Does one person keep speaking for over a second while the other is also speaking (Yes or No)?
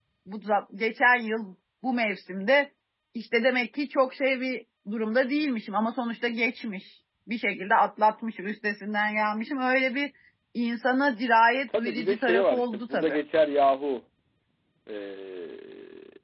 Yes